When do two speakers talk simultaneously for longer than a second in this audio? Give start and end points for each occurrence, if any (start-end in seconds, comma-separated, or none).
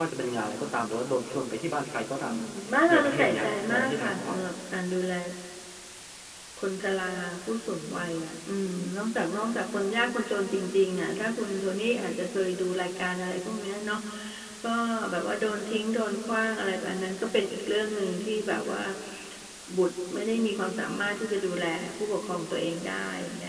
2.9-4.5